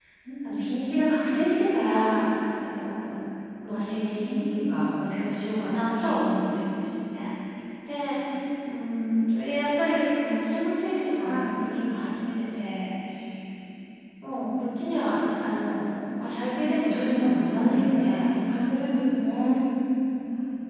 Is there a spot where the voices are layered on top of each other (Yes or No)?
Yes